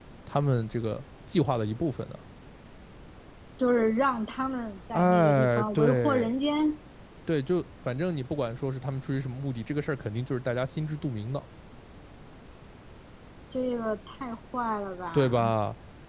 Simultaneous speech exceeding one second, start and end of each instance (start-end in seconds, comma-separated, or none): 4.9-6.3